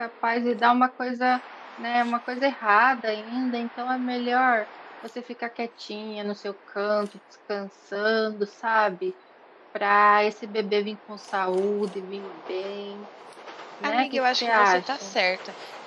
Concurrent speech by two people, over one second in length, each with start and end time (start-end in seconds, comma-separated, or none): 13.8-15.1